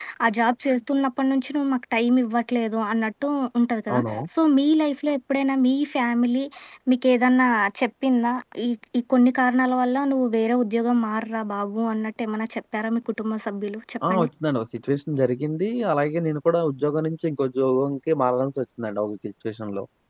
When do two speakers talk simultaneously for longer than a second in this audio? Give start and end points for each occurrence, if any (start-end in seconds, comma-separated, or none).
none